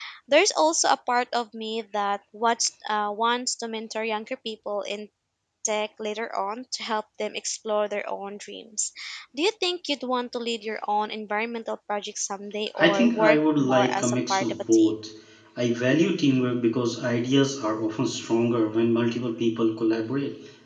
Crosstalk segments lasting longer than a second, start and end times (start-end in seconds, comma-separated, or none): 12.8-14.9